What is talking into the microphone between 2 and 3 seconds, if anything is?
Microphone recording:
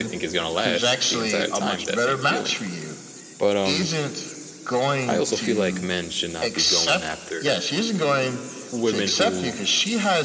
both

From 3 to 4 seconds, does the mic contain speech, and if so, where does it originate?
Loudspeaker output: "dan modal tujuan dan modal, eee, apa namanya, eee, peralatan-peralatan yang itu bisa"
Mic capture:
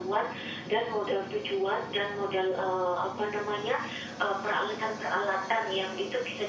echo only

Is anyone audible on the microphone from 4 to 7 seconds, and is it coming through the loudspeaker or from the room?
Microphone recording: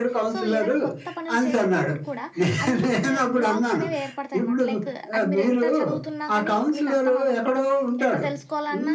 both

